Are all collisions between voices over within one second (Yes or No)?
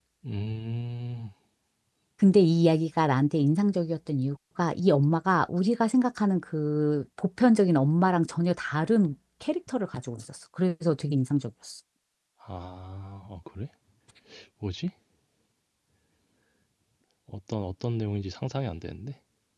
Yes